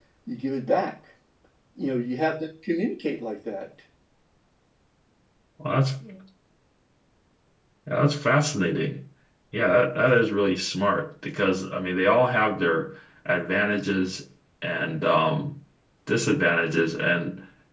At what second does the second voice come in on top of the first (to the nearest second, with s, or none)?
none